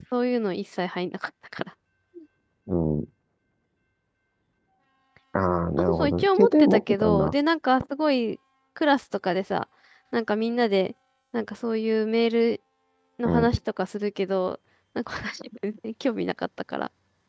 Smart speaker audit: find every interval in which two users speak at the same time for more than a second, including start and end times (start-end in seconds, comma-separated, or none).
5.8-7.3